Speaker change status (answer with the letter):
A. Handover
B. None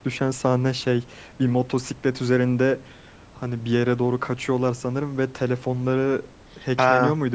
A